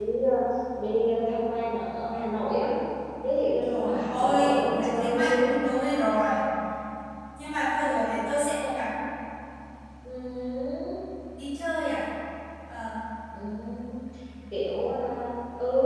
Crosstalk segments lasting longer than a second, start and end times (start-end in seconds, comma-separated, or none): 3.6-5.6